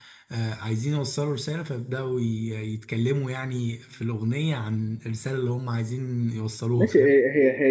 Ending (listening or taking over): taking over